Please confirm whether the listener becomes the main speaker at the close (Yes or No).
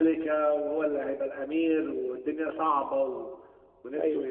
Yes